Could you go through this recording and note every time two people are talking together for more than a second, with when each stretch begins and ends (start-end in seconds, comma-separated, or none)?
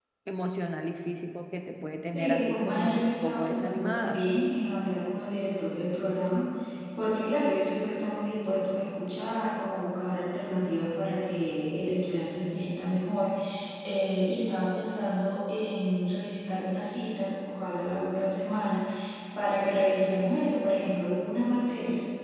2.1-4.2